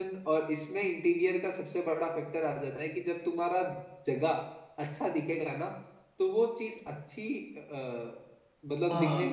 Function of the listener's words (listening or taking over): taking over